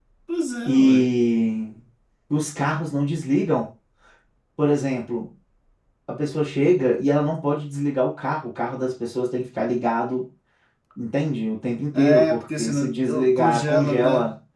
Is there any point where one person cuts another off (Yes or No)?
Yes